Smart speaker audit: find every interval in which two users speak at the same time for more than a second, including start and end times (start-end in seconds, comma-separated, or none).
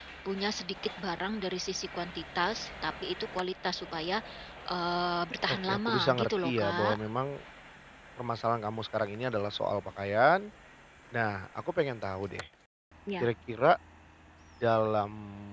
5.5-7.0